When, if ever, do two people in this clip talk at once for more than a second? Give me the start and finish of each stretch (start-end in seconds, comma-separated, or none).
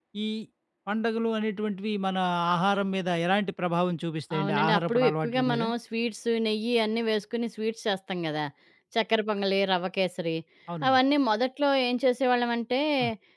4.4-5.6